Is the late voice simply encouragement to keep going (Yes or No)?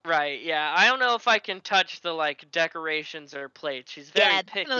No